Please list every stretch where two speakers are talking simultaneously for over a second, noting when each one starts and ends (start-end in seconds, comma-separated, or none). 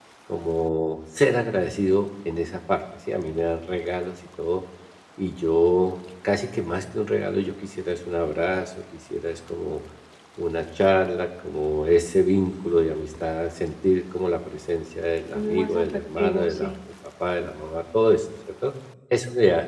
15.3-16.7